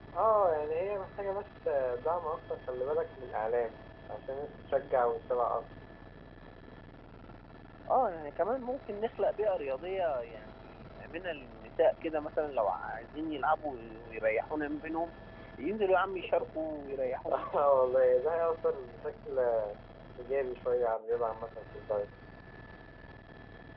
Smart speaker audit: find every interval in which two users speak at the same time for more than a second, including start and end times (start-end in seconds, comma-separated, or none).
none